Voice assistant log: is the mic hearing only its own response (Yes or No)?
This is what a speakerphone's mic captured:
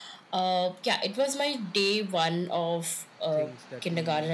No